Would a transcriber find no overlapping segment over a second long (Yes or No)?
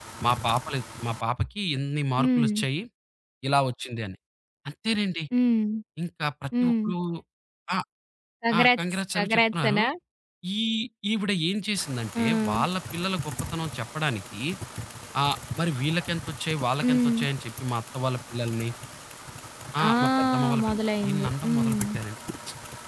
No